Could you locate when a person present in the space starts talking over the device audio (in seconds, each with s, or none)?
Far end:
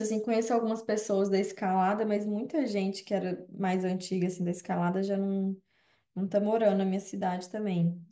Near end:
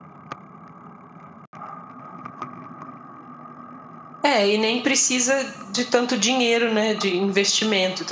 4.2 s